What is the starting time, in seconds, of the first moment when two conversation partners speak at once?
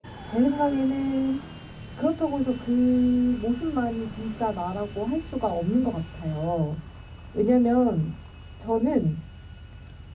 none

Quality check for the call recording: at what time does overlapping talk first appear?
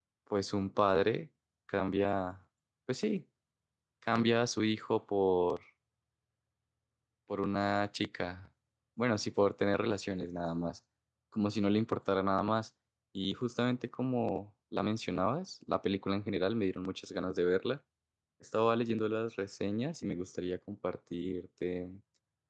none

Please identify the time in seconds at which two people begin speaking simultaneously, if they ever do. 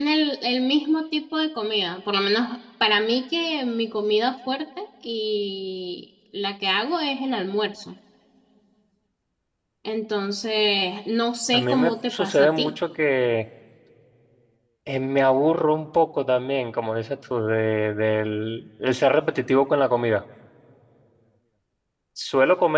11.5 s

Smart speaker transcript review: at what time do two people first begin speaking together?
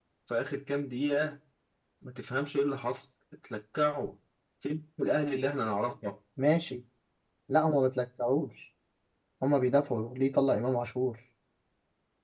none

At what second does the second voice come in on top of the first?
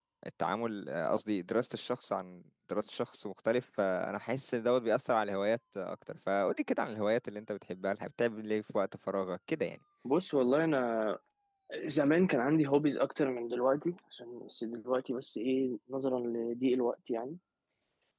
none

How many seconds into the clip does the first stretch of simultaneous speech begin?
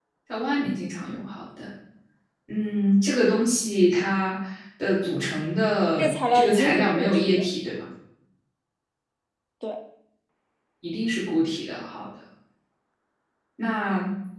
6.0 s

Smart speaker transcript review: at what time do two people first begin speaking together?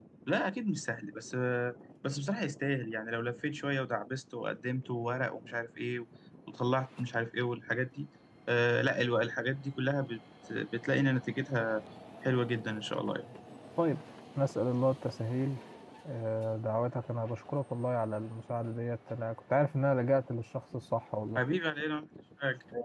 none

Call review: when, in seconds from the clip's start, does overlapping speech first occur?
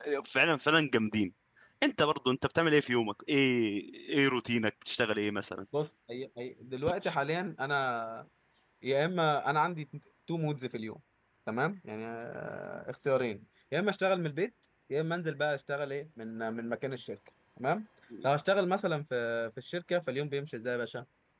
none

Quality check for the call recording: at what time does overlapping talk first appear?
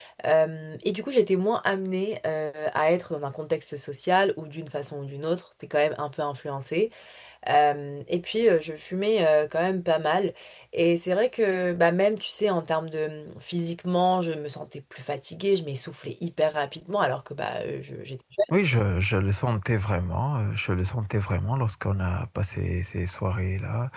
none

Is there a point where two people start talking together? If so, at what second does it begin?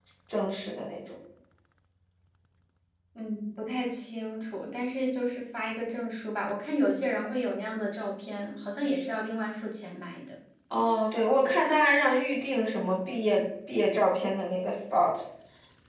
none

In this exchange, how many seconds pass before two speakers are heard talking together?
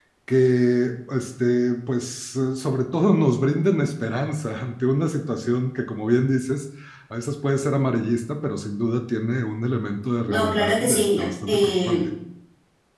10.2 s

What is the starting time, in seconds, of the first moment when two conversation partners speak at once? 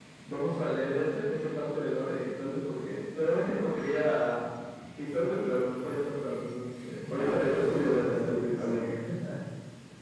7.1 s

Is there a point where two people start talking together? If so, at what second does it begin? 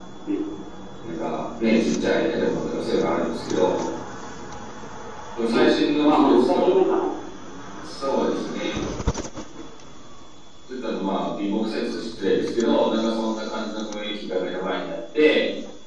5.5 s

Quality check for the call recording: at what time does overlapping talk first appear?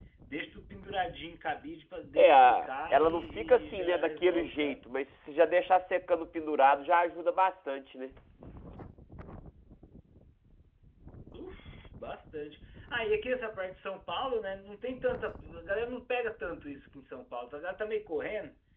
2.2 s

